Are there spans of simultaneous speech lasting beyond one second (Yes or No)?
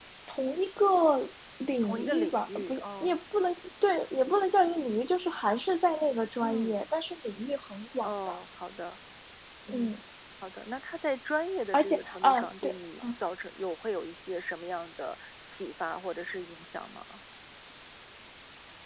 Yes